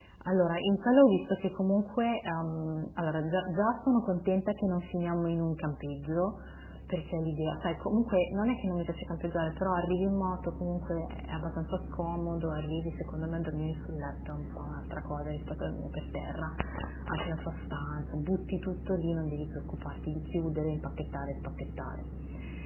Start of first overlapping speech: none

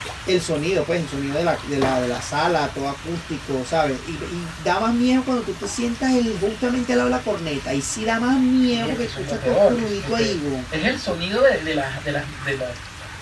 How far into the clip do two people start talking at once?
9 s

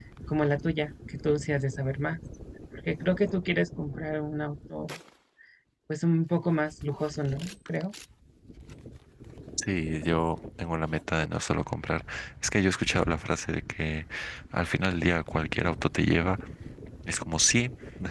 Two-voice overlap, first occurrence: none

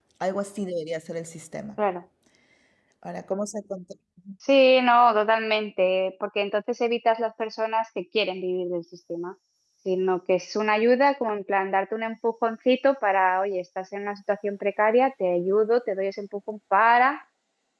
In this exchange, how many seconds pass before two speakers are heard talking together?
none

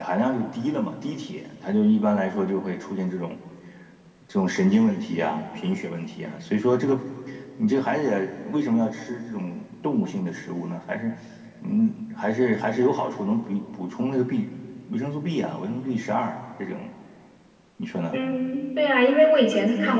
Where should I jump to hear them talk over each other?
none

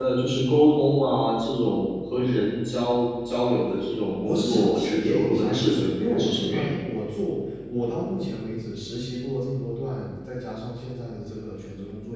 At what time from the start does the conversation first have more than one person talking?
4 s

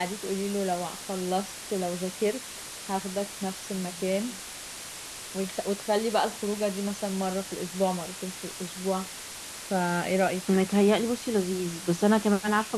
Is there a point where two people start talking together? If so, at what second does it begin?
none

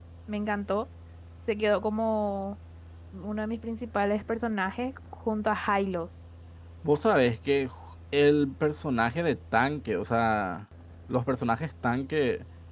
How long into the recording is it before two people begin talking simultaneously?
none

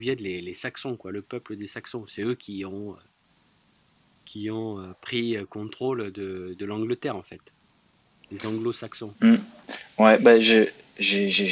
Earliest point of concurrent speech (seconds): none

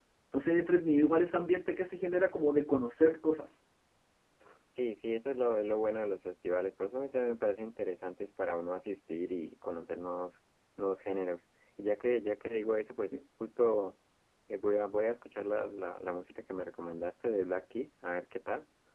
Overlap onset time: none

